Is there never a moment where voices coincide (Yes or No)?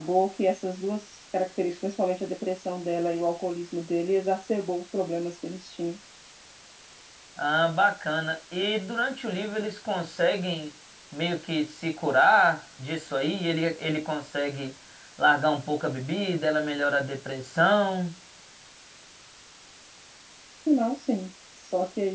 Yes